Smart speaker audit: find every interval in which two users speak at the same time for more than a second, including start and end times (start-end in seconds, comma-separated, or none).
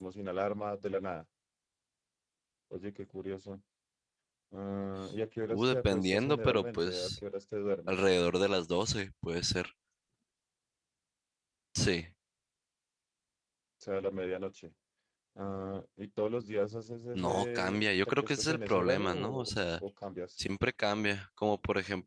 5.5-7.2, 17.1-19.5